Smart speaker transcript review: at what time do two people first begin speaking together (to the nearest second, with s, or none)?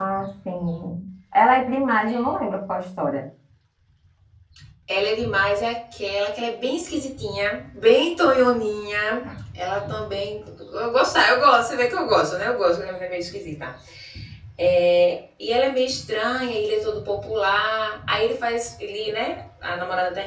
none